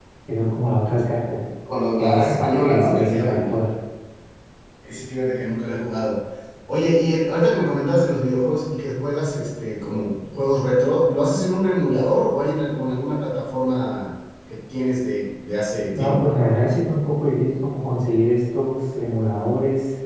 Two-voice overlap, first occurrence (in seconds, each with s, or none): 1.9 s